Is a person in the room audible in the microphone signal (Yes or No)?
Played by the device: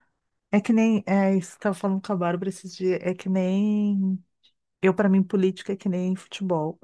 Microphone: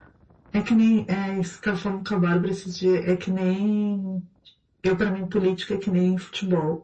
No